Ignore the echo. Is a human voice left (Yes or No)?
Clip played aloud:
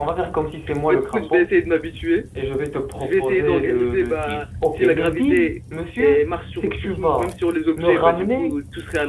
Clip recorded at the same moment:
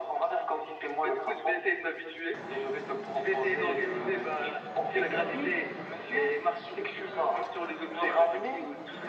No